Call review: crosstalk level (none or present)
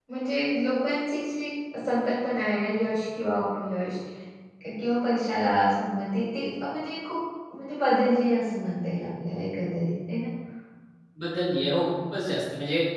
none